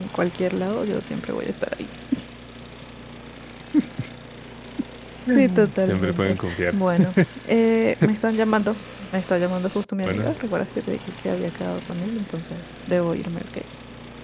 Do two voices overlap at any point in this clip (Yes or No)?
Yes